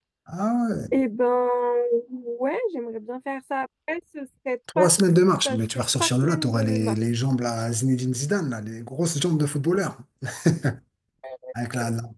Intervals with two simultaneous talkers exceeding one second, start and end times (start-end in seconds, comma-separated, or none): 5.4-7.0